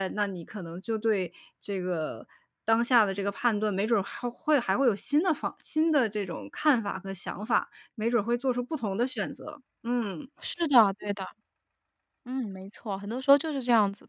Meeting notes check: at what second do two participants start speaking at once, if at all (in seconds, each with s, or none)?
none